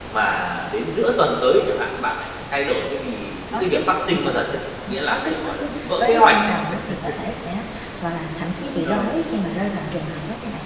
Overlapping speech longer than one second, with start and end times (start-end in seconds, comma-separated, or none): 4.9-6.5